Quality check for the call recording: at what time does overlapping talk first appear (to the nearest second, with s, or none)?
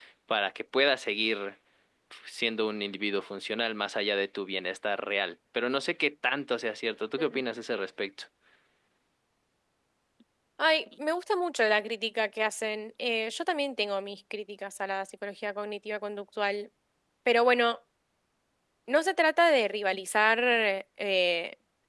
none